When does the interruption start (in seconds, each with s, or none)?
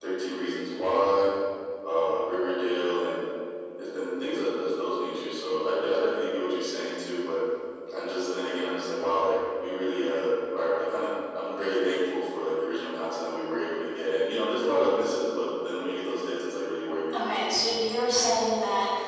none